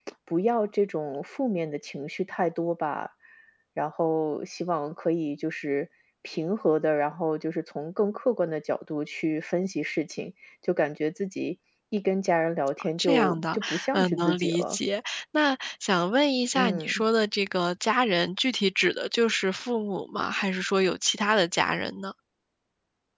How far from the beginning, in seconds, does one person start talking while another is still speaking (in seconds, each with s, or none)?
13.0 s